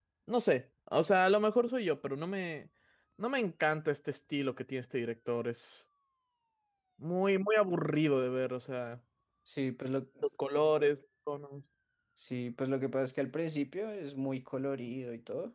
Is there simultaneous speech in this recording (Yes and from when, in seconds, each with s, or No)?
No